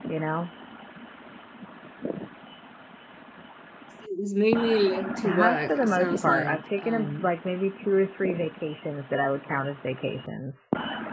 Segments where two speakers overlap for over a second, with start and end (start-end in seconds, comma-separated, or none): 5.2-7.3